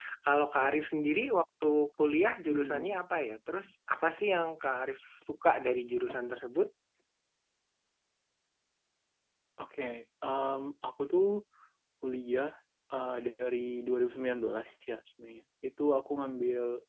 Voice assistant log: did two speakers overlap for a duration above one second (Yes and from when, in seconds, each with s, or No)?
No